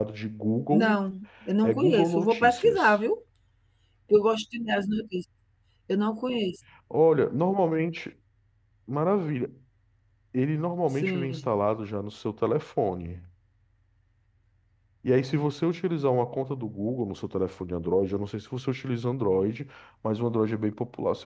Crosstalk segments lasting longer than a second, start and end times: 1.6-3.0

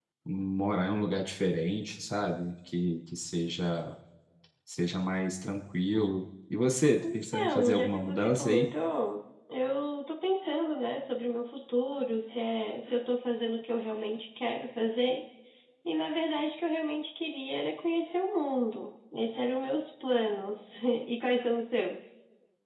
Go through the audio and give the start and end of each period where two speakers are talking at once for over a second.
7.1-8.7

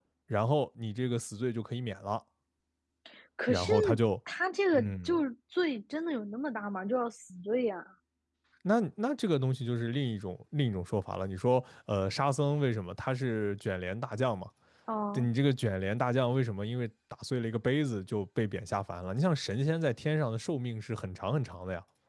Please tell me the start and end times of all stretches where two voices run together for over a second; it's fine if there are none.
none

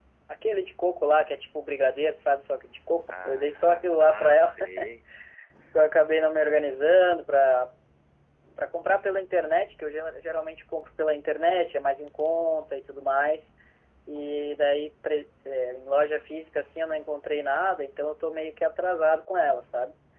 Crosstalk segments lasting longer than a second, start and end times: 3.1-4.8

